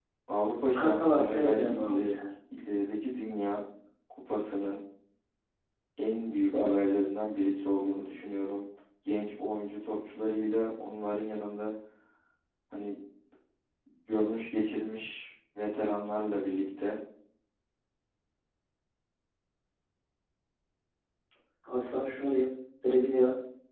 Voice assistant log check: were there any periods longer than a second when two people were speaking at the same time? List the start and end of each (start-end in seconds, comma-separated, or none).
0.8-2.2